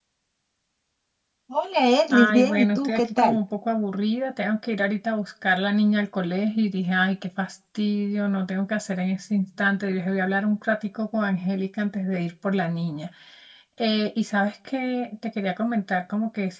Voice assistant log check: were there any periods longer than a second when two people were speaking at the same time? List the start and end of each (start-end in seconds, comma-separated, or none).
2.2-3.4